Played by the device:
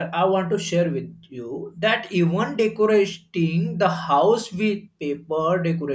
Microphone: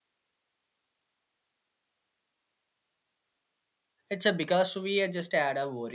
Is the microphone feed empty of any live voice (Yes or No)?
No